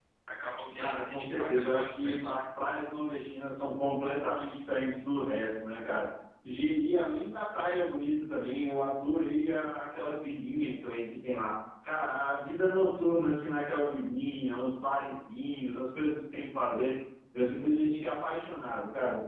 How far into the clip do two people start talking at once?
0.8 s

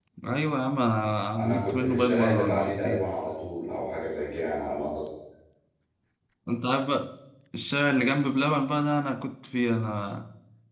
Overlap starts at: 1.4 s

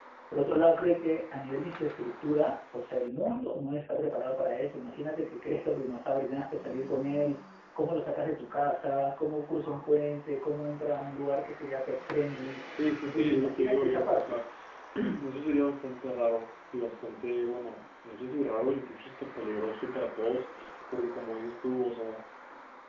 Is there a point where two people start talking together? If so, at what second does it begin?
13.0 s

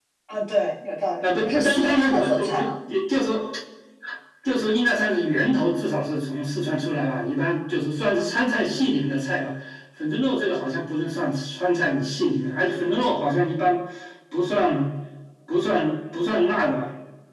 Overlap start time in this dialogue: 1.2 s

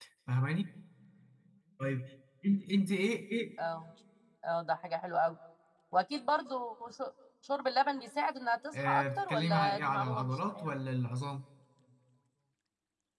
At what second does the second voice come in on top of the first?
8.7 s

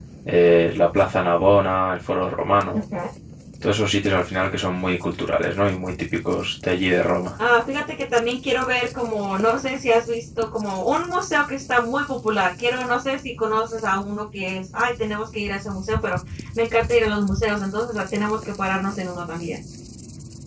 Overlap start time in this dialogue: none

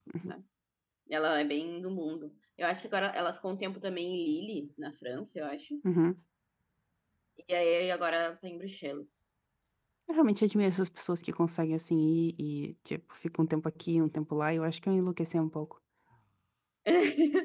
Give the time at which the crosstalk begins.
none

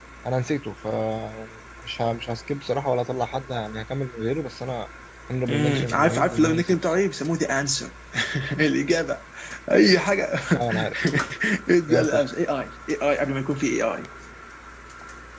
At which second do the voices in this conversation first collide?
5.5 s

